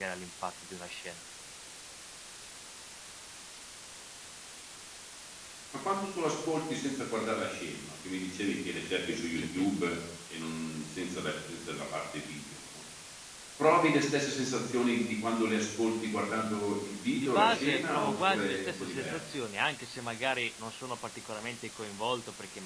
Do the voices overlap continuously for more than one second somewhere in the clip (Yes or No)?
Yes